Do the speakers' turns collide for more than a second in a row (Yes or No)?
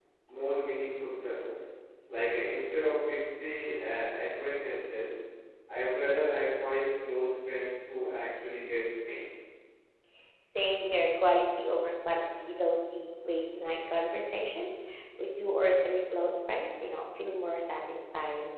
No